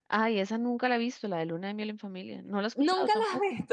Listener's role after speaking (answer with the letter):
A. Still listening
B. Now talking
B